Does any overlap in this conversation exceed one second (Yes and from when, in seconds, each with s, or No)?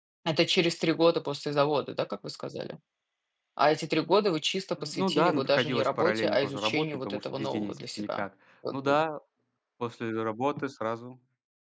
Yes, from 4.8 s